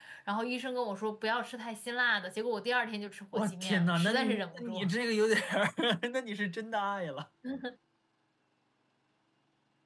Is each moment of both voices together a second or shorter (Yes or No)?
No